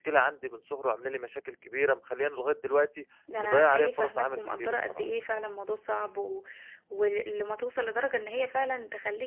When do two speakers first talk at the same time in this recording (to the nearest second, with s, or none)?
3 s